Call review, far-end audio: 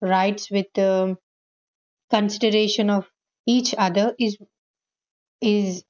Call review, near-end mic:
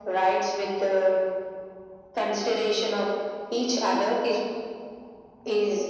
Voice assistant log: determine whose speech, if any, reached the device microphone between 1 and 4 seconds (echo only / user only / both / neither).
echo only